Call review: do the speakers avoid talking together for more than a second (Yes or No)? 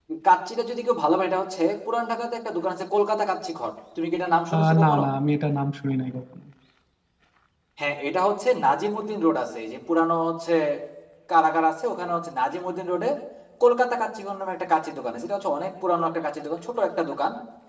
Yes